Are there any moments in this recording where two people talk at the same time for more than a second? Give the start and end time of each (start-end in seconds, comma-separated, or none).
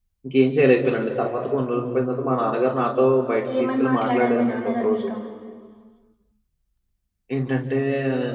3.6-5.1